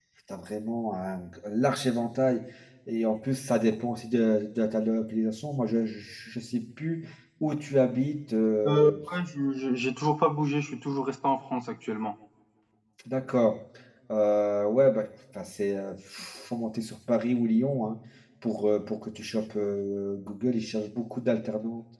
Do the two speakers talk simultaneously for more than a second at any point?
No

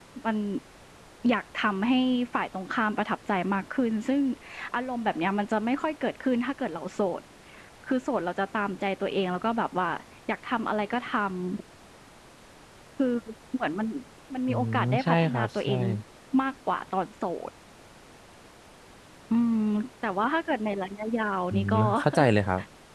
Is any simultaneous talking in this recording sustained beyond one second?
Yes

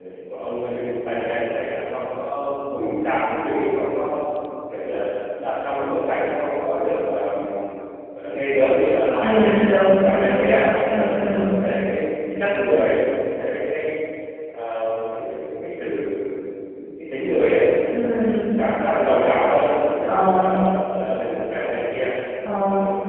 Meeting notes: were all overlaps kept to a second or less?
No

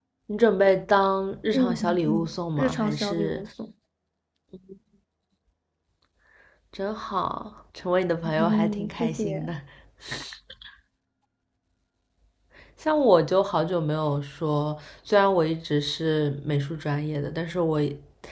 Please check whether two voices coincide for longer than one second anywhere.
Yes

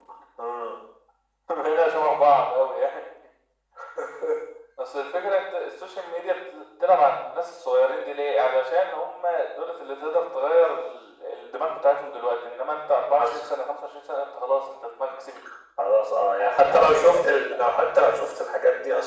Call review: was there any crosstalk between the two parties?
Yes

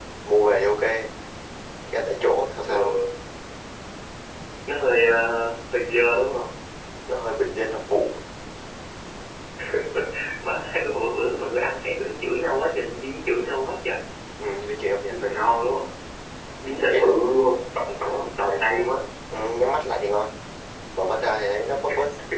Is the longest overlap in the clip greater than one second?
No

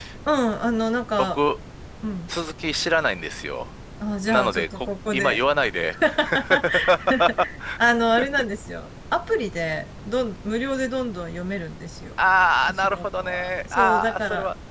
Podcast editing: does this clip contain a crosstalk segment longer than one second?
Yes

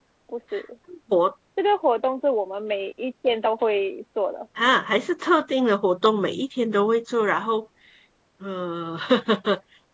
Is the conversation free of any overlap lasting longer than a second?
Yes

